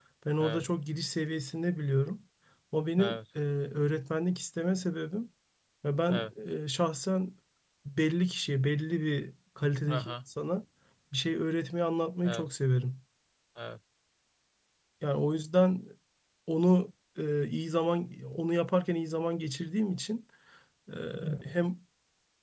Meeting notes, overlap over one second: none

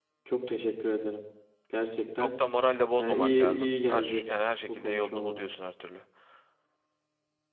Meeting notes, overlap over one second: present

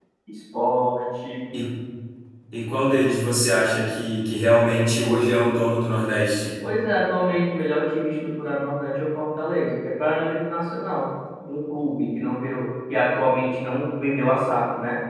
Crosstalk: none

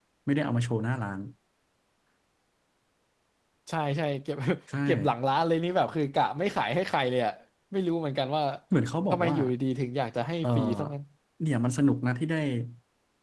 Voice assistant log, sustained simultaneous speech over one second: none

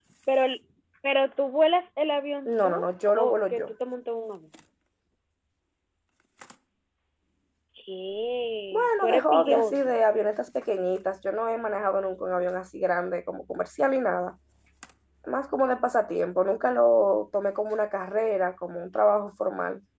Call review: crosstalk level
present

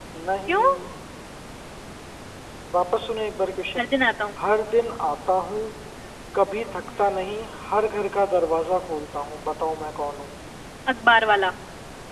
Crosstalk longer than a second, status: none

